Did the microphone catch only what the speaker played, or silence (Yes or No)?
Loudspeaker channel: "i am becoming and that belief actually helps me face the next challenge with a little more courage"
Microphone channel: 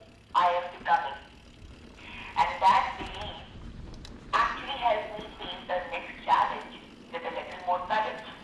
Yes